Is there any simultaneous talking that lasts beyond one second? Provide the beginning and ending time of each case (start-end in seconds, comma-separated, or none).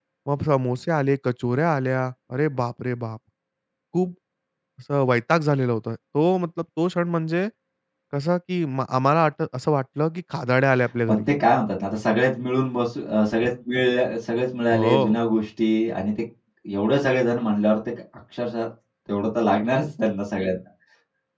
none